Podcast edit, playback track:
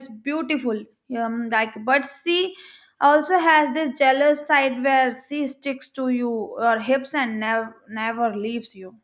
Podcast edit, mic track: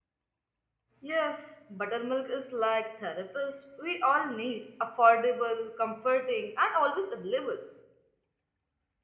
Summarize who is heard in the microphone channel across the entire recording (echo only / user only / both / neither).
user only